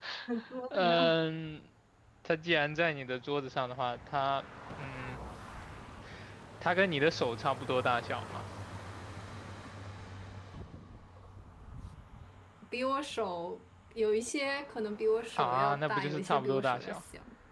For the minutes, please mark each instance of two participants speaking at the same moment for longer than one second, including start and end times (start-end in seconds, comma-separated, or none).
15.4-17.0